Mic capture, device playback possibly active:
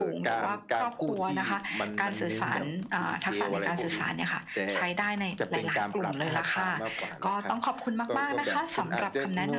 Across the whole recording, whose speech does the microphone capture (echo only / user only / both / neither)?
echo only